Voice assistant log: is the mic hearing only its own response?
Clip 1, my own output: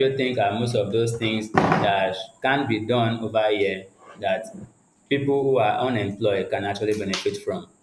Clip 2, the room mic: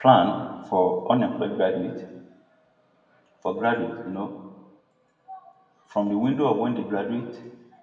No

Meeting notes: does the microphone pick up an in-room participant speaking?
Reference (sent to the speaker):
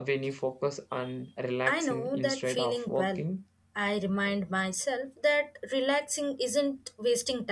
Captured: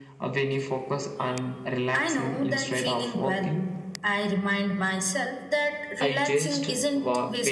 Yes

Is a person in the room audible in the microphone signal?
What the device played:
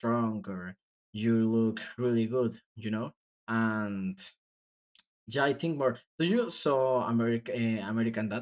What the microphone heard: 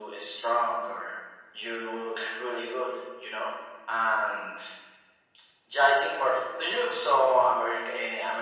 No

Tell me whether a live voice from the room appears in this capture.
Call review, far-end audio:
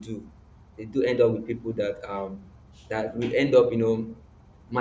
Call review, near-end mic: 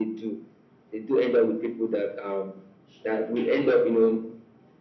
No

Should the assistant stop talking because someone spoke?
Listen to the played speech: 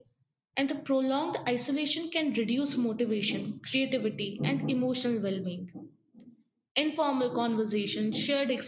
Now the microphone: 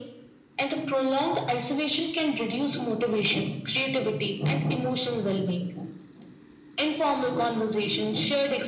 No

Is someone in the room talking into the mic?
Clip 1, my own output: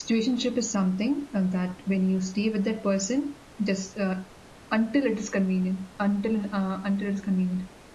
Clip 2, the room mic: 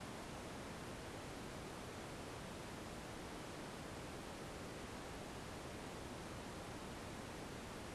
No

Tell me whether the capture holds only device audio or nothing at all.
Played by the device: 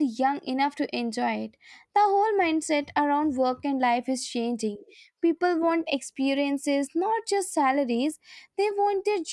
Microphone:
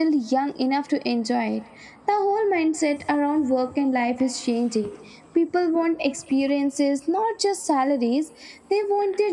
Yes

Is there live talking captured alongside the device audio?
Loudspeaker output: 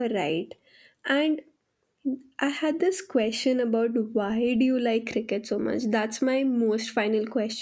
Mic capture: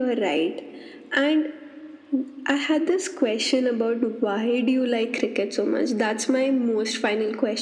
No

